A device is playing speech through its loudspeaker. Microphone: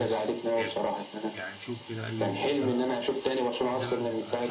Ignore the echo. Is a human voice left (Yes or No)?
Yes